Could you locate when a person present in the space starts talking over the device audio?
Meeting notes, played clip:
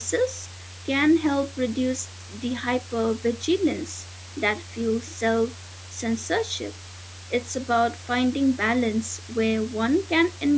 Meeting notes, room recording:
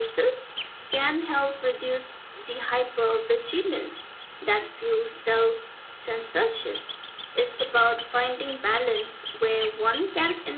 none

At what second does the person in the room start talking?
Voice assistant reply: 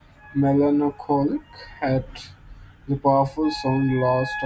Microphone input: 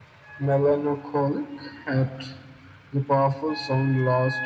none

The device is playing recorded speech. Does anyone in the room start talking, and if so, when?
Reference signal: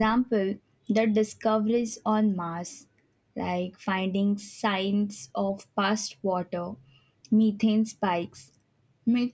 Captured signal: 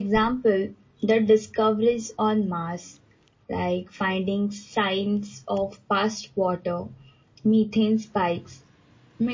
none

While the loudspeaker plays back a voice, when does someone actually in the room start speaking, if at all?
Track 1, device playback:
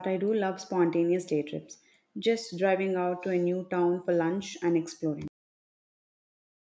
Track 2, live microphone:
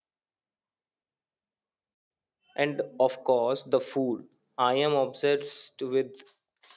2.5 s

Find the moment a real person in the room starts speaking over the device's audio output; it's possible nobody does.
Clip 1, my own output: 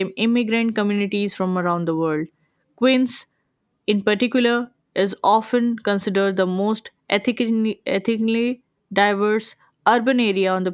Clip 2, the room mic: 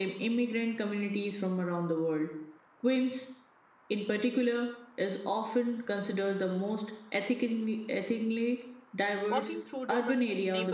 9.3 s

